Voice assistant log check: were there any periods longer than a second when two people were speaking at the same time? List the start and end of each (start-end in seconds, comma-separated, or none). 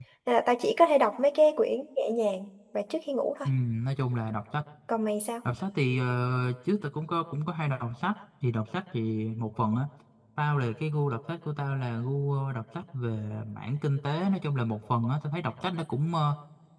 none